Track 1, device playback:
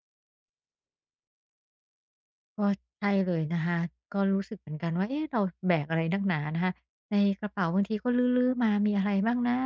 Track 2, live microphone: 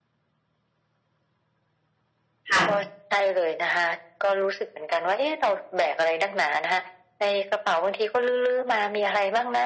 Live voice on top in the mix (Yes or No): Yes